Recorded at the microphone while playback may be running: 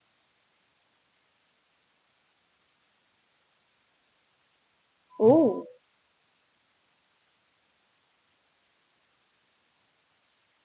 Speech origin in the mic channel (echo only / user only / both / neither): user only